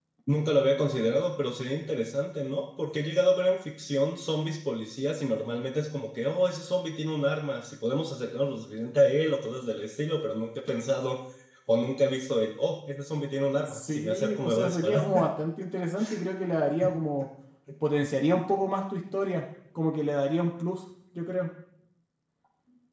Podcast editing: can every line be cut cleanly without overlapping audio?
No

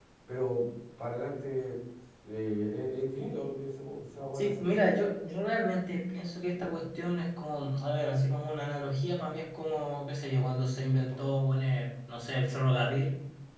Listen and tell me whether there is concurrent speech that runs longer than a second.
No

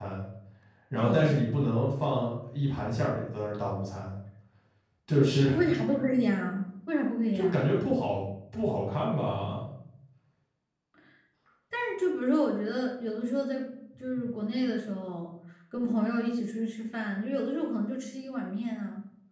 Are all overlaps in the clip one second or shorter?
Yes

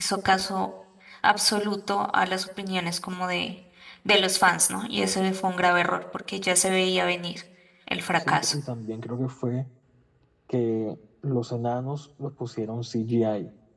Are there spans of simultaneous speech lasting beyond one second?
No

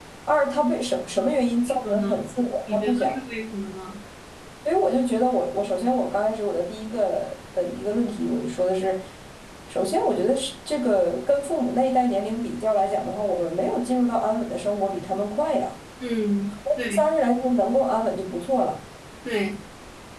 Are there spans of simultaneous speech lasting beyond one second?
Yes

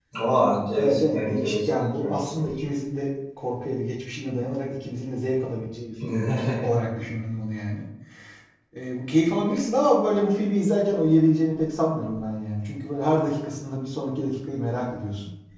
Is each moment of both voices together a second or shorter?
No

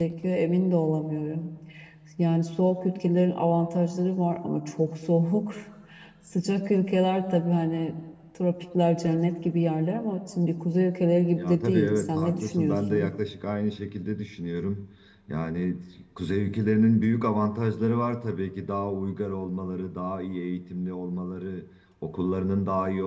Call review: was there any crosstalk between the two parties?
Yes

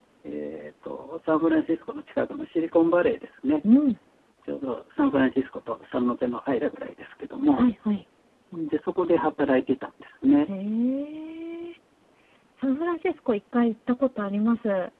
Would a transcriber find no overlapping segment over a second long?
Yes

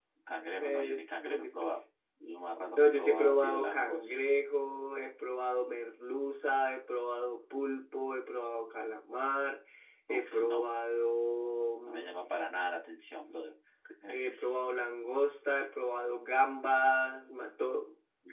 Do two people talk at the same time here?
Yes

